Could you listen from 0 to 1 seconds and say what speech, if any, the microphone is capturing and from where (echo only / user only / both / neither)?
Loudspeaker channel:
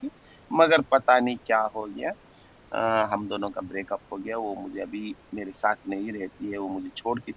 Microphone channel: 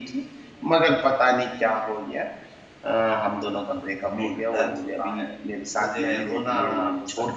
echo only